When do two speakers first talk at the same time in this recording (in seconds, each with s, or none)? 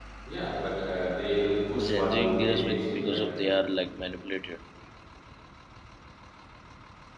1.7 s